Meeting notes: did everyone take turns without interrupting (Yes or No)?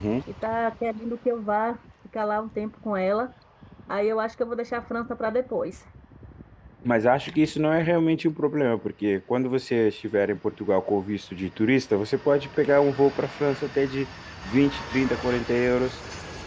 Yes